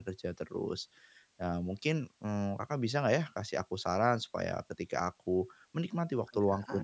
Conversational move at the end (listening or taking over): listening